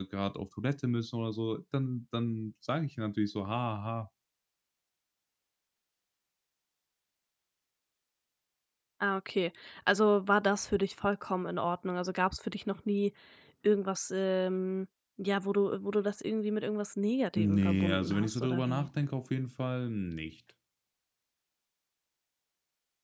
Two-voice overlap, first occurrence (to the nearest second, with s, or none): 17 s